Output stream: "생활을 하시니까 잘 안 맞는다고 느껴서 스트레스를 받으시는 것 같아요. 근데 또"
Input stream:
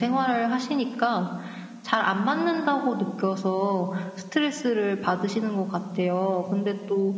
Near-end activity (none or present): none